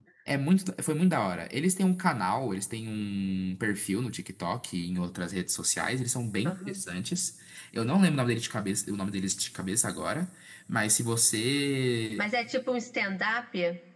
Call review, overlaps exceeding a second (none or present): none